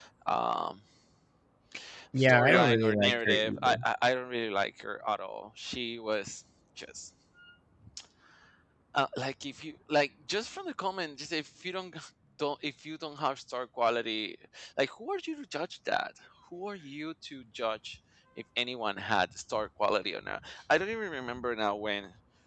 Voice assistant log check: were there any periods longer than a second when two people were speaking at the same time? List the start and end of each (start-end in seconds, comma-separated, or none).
2.2-3.8